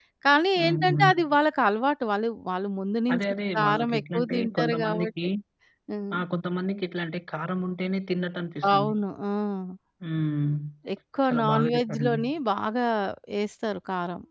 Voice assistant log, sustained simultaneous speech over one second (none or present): present